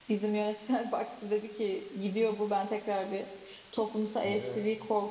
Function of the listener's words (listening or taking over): listening